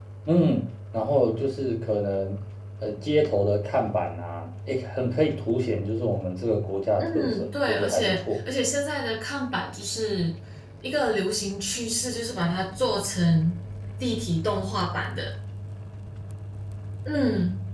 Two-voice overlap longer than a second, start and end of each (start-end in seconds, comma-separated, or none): 7.0-8.4